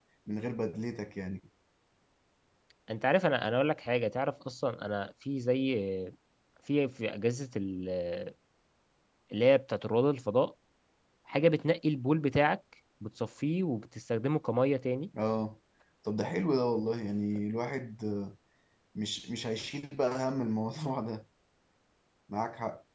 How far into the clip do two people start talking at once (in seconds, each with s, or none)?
none